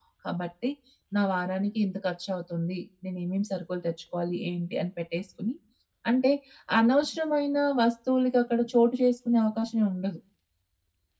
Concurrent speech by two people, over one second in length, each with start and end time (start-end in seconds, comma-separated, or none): none